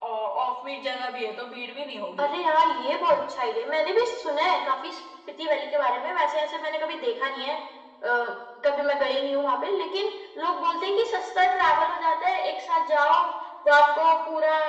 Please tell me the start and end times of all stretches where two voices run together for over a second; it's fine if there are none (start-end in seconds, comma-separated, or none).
none